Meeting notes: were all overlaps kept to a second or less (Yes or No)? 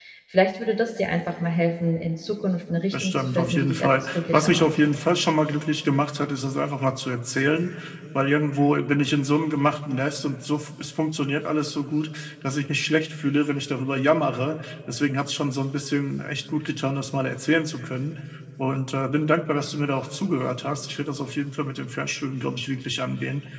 No